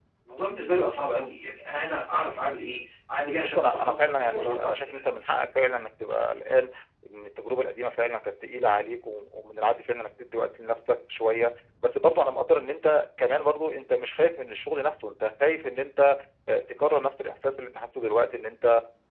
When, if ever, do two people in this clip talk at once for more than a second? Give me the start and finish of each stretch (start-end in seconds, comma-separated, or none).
3.4-5.0